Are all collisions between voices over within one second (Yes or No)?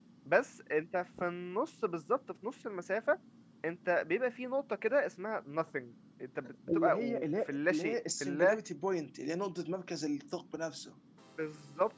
No